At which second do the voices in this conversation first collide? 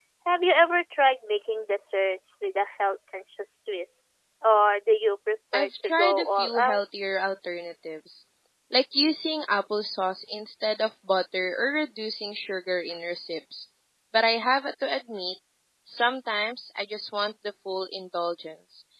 5.5 s

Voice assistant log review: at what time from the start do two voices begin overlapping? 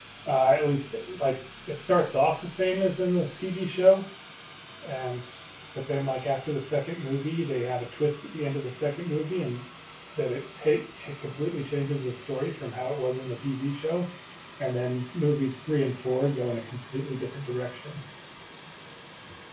none

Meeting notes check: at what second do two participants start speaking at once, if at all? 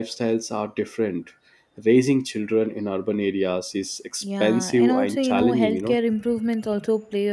4.2 s

